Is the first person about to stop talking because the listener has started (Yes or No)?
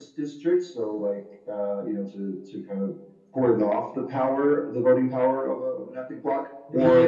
Yes